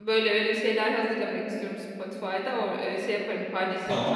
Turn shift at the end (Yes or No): Yes